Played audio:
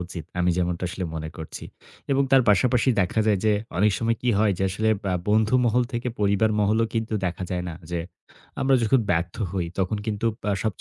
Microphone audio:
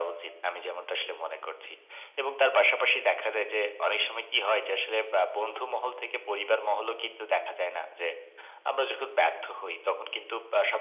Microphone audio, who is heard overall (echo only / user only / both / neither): echo only